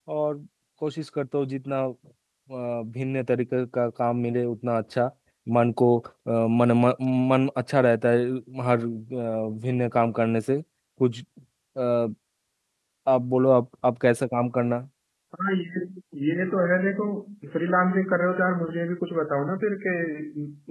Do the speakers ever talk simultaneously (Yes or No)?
No